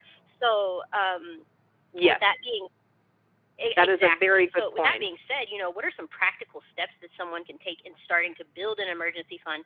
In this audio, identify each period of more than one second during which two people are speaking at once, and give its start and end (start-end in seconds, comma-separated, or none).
3.8-5.1